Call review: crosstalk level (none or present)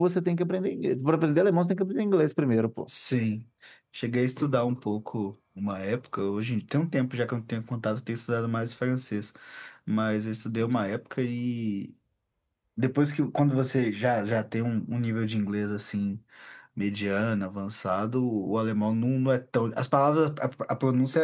none